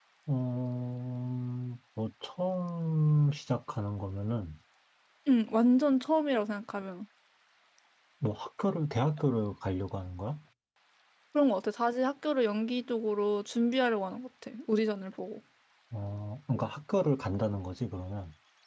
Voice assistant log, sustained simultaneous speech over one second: none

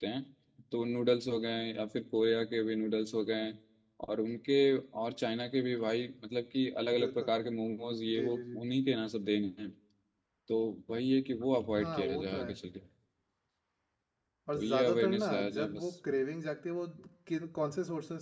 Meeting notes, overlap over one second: present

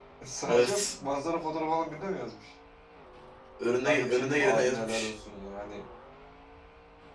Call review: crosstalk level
present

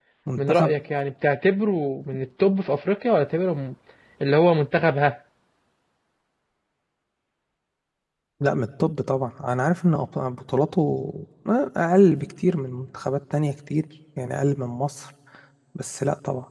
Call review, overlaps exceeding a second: none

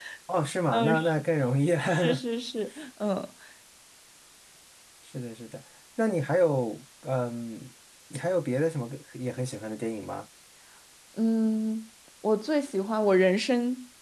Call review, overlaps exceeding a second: none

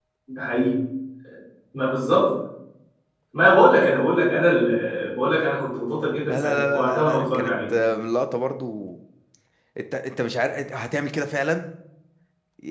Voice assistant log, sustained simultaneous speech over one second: present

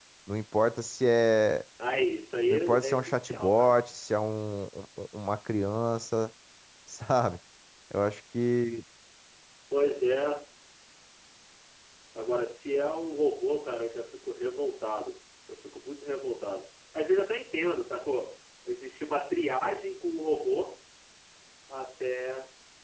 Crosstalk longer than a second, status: present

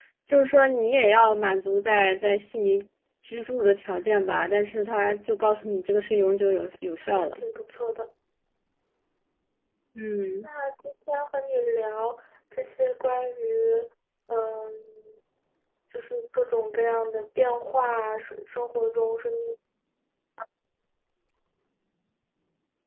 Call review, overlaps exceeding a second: none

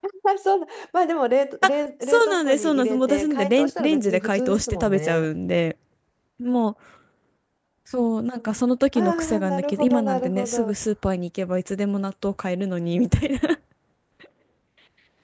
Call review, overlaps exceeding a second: present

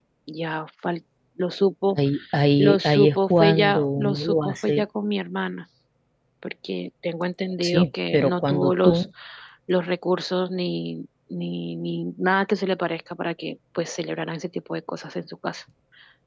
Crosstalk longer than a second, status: present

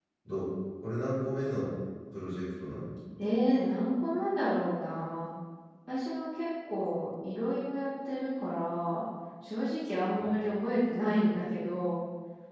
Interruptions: none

